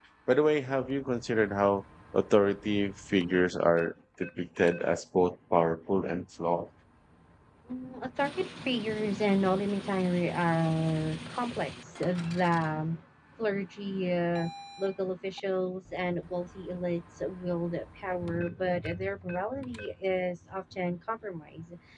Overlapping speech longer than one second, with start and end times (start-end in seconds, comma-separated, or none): none